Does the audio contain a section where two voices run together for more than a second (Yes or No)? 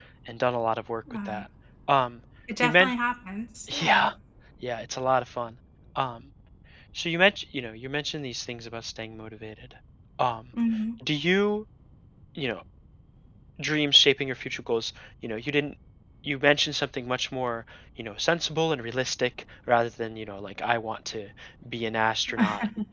No